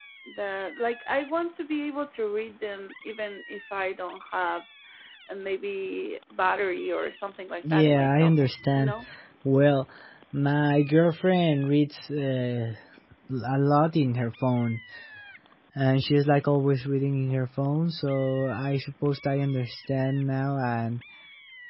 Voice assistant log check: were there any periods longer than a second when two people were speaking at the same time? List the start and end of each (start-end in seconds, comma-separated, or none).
7.6-8.9